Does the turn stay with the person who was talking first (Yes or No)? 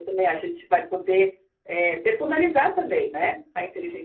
Yes